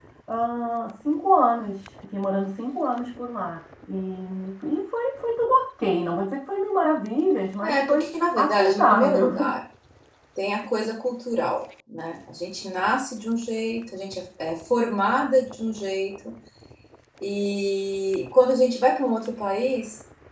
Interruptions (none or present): present